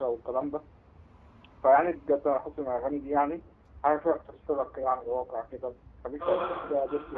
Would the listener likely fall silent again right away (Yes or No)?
No